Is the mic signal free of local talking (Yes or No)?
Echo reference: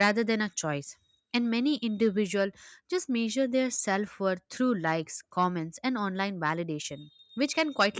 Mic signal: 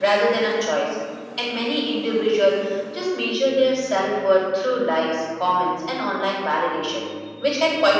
Yes